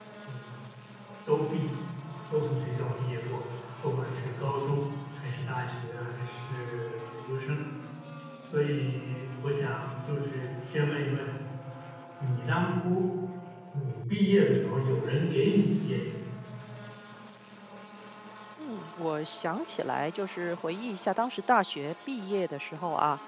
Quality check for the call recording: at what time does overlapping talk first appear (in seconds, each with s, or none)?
none